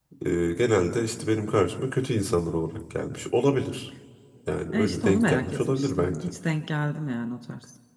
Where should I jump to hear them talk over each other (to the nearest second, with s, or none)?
5 s